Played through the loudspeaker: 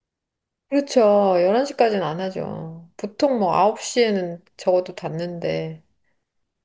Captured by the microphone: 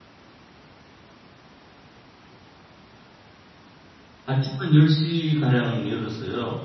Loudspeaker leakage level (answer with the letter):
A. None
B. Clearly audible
A